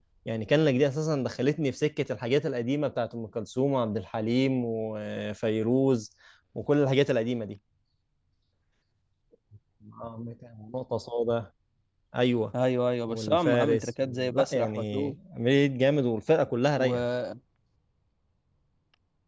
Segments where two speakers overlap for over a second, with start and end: 13.1-15.1

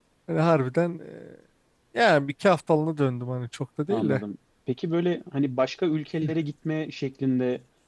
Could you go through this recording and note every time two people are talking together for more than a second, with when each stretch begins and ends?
none

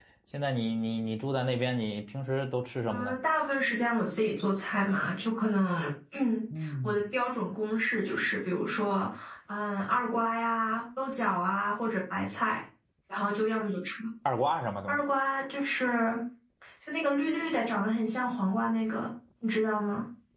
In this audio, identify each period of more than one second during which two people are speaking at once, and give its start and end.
none

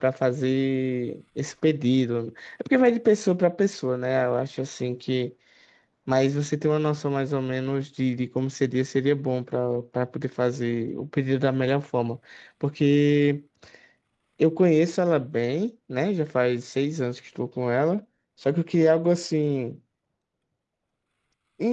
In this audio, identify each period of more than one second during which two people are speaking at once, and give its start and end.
none

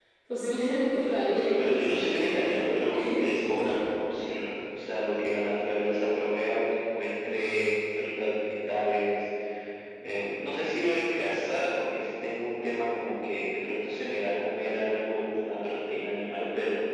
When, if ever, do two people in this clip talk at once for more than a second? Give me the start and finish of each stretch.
1.6-3.8

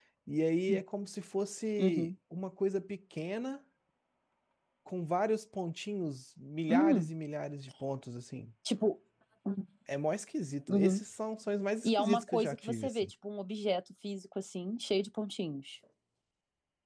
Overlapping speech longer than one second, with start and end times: 11.8-13.1

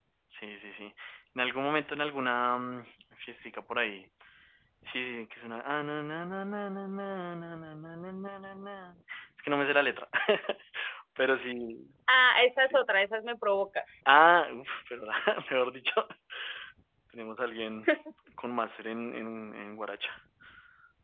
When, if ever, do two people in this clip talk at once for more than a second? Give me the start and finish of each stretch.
none

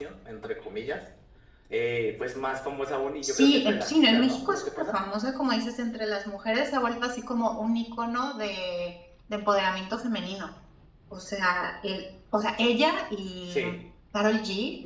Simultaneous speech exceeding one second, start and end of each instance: 3.2-5.0

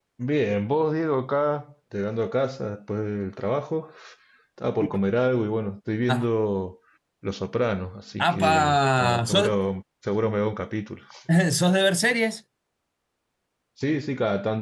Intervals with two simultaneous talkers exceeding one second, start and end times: 8.2-9.5

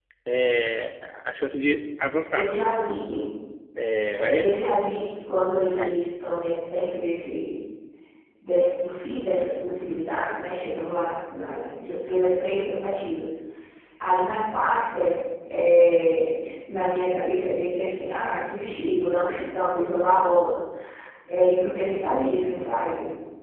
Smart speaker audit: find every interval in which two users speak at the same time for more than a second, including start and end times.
none

